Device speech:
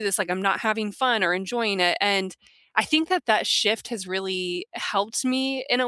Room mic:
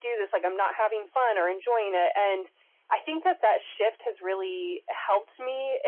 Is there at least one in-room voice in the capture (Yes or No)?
No